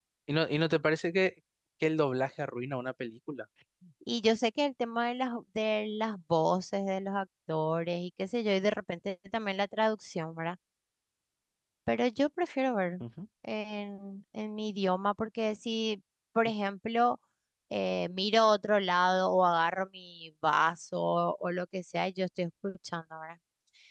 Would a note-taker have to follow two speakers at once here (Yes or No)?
No